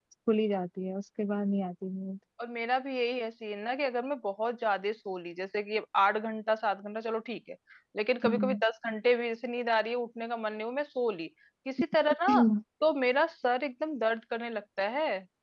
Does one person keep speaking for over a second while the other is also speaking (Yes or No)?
No